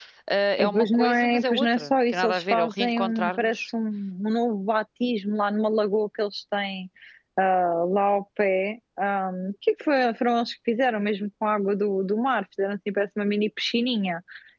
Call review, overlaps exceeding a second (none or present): present